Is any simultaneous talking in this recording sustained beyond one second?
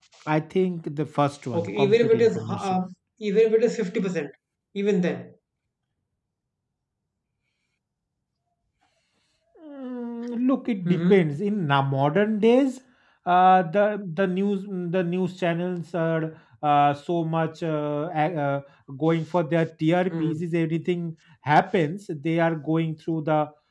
Yes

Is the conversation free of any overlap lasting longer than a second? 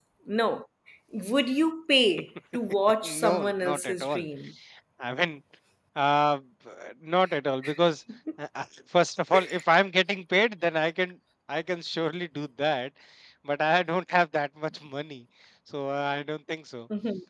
No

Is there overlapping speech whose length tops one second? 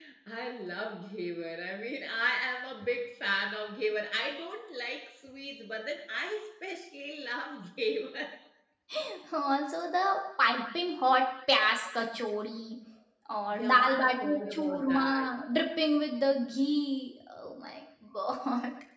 Yes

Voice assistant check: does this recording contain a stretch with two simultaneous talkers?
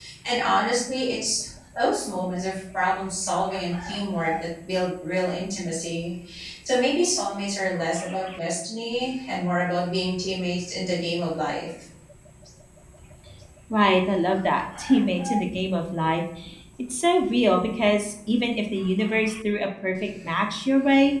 No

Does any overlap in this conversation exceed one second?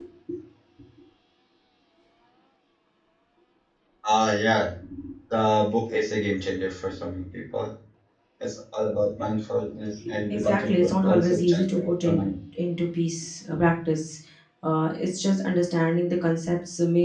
Yes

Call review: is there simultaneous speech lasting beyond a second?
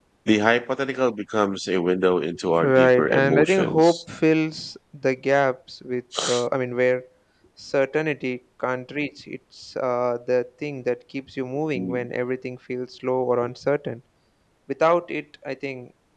Yes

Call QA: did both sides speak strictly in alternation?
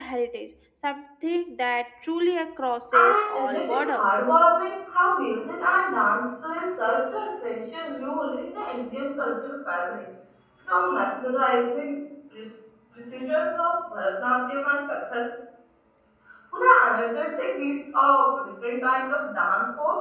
No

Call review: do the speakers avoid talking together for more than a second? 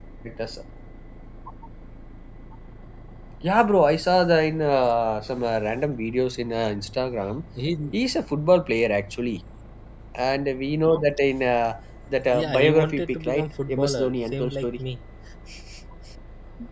No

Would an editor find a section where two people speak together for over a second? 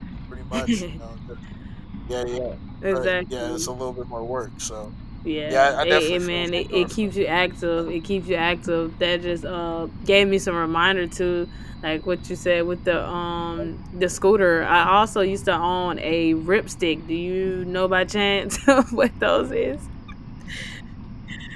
Yes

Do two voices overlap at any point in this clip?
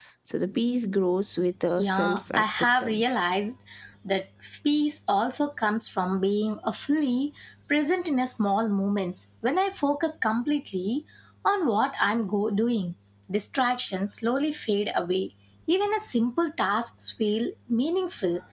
Yes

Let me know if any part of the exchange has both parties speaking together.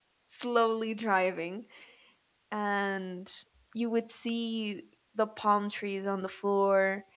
No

